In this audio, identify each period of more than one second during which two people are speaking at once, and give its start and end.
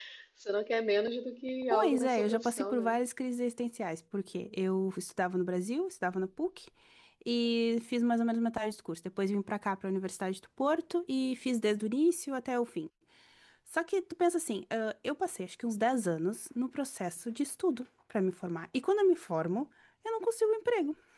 1.7-2.9

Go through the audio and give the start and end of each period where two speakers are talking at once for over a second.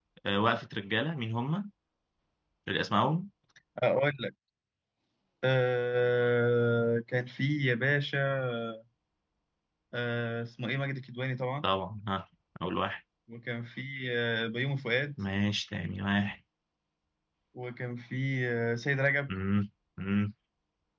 none

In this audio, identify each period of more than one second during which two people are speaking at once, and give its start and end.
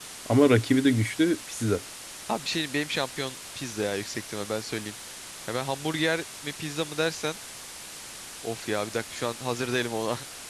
none

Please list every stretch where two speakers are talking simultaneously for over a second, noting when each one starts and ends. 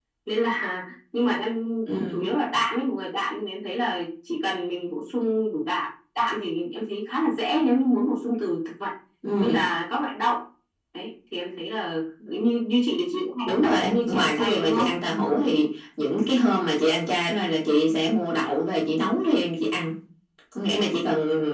13.5-14.9

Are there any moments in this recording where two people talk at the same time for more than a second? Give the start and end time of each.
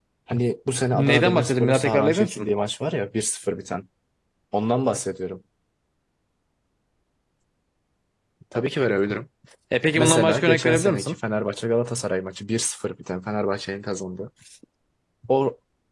0.9-2.5, 9.9-11.2

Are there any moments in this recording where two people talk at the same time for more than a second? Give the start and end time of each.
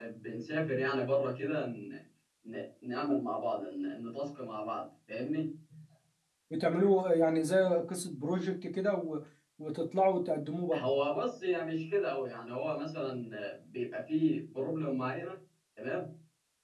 none

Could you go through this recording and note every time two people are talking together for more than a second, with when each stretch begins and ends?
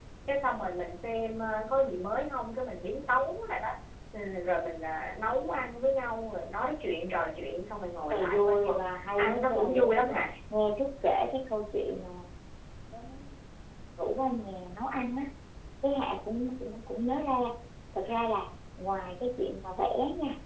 8.1-10.2

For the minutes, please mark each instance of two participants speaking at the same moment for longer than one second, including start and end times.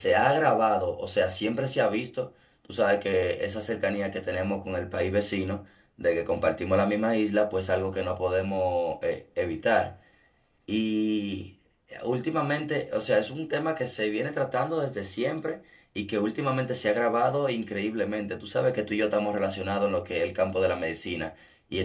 none

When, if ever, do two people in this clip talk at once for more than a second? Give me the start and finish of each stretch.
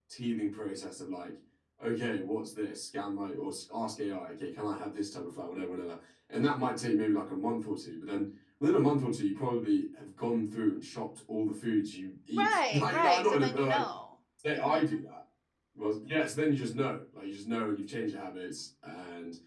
12.3-13.8

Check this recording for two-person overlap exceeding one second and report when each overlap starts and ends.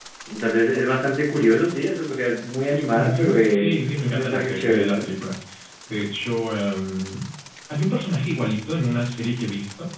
2.9-5.1

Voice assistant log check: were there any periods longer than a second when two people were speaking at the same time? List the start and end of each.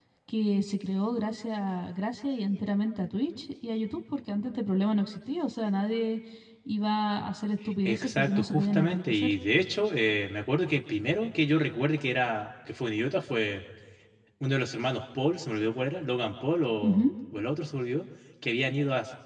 7.8-9.3

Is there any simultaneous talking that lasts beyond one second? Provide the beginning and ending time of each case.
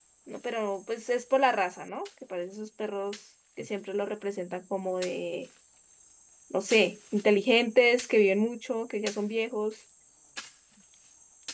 none

